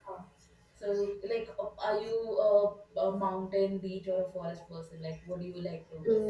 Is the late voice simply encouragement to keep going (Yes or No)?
No